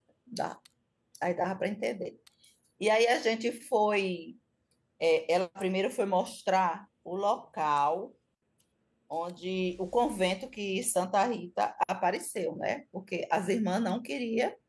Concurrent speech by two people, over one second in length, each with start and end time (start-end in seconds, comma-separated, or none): none